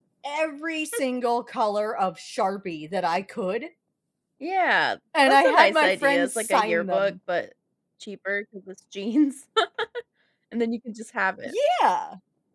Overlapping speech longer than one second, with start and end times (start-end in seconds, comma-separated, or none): 5.3-7.1